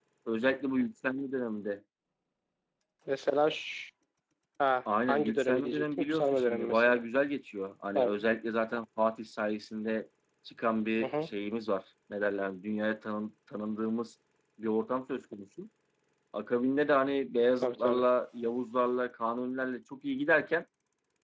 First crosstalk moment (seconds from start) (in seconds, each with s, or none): 5.1 s